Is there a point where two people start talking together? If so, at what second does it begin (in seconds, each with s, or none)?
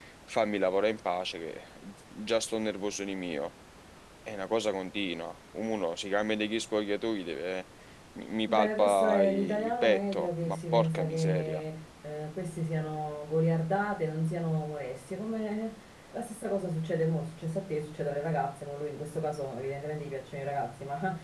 8.5 s